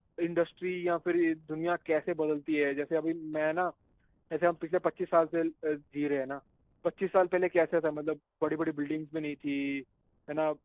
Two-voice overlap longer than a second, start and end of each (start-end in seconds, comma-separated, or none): none